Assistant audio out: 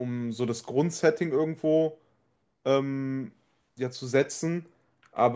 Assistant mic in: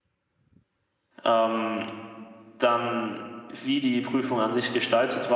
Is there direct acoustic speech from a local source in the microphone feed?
Yes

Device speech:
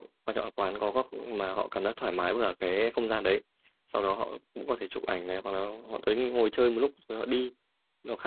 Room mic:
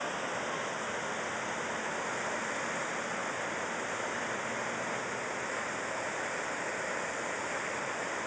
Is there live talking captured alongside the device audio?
No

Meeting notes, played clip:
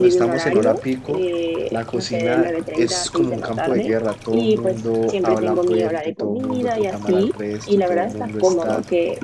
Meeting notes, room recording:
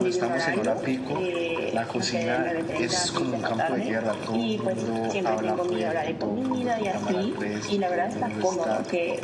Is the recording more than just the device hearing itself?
No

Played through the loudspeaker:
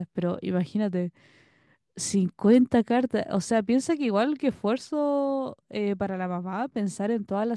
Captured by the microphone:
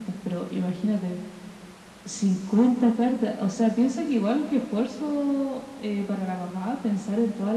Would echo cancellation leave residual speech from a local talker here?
No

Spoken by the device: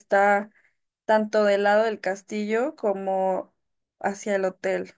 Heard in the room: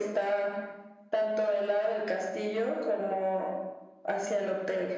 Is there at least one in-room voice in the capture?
No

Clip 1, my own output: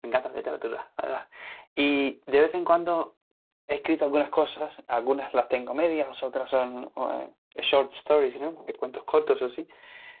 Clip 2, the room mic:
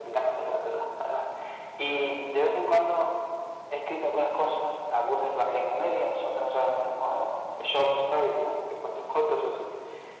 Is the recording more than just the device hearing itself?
No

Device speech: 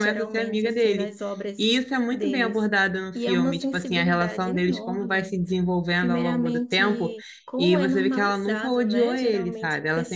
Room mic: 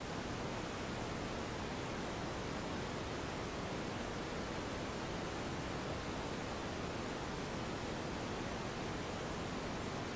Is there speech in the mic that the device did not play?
No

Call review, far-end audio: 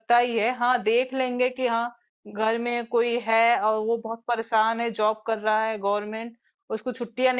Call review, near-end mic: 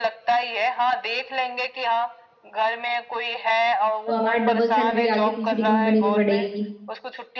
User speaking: Yes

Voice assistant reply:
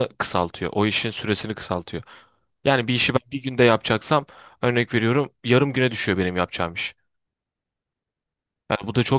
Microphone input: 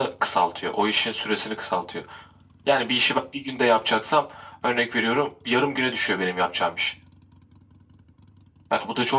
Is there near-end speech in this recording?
No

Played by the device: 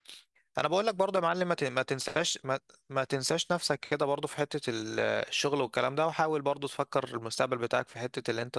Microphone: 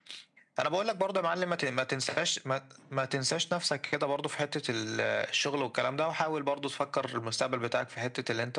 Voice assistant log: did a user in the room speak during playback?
No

